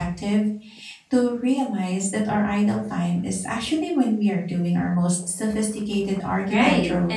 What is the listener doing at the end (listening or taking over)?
taking over